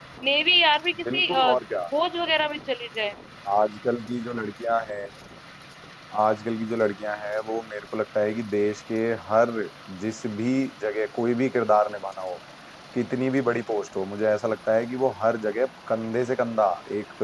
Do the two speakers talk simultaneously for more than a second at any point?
No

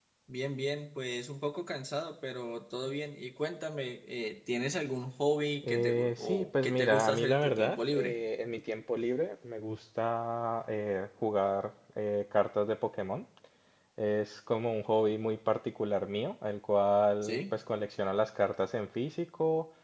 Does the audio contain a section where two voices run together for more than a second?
Yes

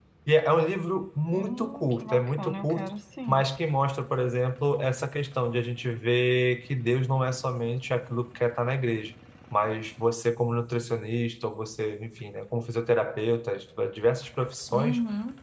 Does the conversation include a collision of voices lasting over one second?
Yes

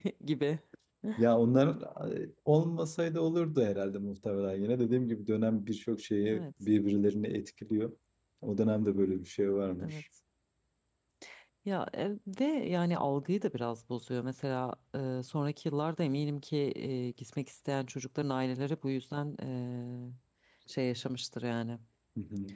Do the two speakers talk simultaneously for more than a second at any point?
No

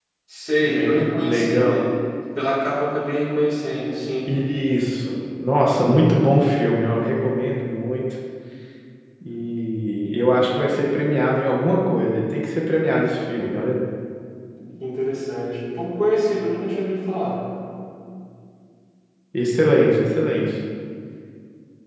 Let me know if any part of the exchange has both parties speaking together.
Yes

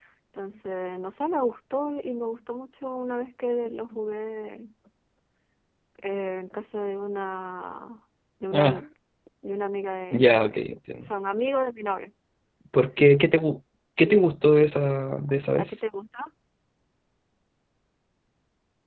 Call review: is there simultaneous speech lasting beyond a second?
No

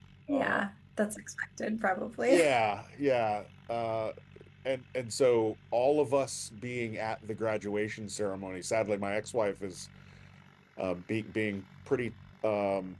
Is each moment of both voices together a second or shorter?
Yes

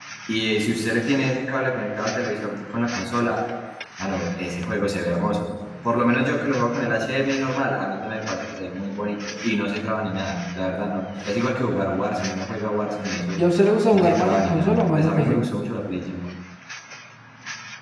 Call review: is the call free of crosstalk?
No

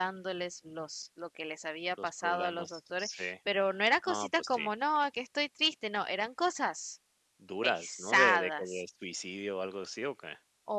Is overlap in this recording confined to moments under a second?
No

